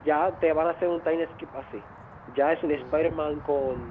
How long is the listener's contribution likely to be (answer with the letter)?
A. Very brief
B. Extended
A